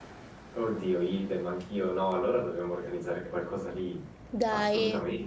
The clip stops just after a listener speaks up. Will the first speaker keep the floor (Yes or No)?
No